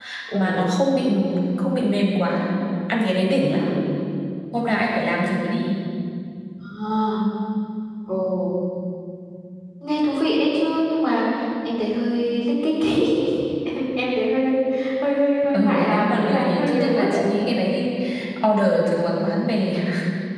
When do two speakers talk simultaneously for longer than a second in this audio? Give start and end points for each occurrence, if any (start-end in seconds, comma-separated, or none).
15.6-17.3